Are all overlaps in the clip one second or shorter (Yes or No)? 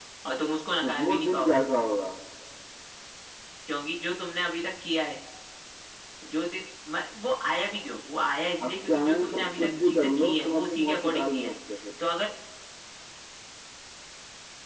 No